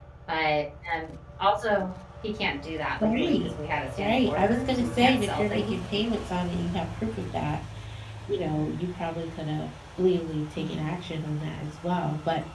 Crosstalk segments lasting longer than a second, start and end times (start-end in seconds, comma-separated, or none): 4.0-5.8